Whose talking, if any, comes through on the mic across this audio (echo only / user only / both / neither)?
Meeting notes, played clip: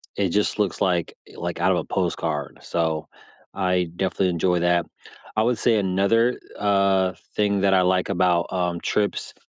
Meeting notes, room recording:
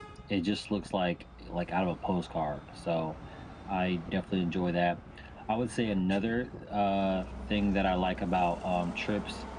echo only